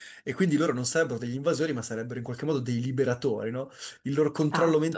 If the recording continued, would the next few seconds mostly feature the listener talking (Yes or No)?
No